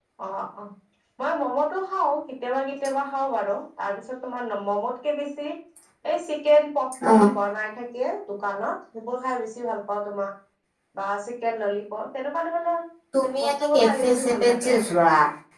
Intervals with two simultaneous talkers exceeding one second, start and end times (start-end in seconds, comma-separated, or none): 13.4-14.8